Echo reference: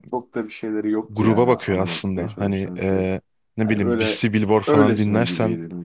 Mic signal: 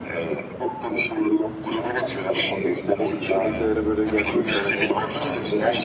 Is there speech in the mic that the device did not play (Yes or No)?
Yes